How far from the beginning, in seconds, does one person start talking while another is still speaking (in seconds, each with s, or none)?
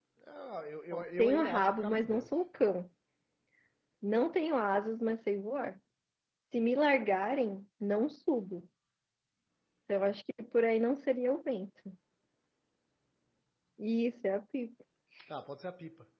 0.9 s